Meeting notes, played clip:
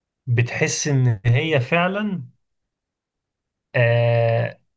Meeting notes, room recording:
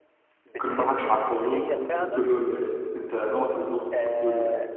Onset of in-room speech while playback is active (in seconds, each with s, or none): 0.6 s